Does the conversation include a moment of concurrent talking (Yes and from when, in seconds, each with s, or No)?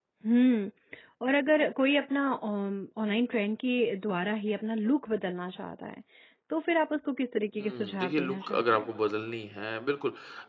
Yes, from 7.6 s